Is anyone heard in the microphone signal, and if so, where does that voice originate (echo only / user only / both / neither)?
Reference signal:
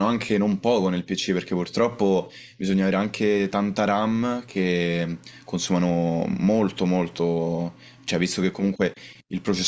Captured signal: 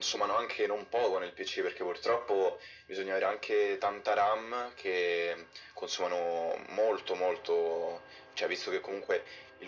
echo only